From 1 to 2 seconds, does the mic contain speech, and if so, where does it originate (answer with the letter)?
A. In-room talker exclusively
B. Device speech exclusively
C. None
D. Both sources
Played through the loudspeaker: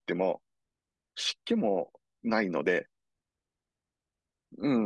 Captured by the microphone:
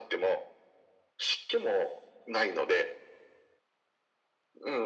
B